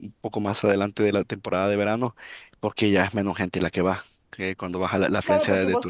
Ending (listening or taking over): taking over